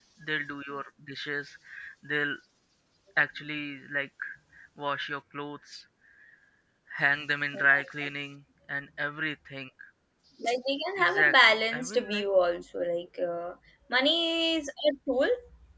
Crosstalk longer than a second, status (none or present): present